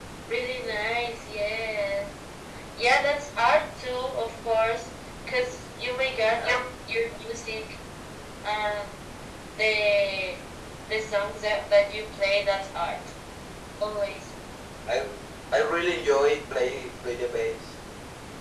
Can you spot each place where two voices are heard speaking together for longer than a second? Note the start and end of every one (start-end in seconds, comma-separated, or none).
none